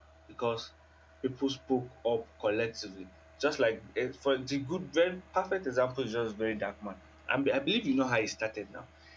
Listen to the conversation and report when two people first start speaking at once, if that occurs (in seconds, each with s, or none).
none